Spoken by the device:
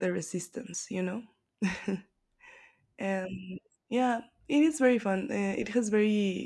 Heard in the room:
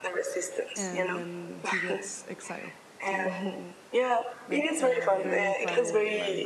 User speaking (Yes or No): Yes